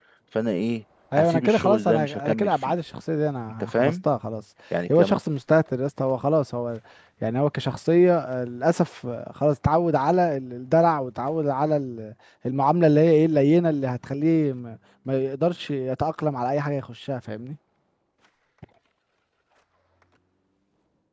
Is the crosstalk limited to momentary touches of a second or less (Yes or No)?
No